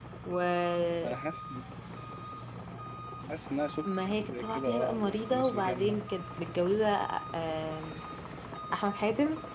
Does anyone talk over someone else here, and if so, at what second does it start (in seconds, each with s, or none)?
3.9 s